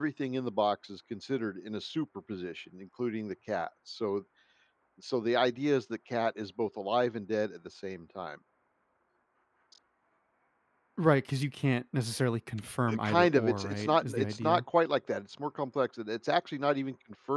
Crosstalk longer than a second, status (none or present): present